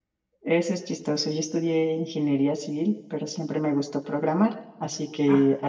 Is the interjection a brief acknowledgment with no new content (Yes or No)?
Yes